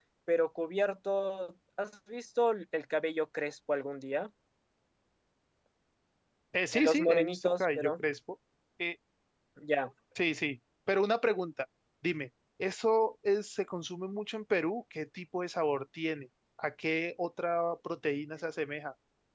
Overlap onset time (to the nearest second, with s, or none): 7 s